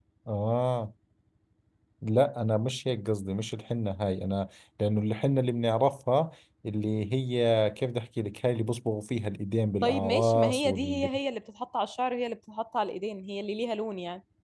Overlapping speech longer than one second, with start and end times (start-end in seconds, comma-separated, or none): 9.8-11.1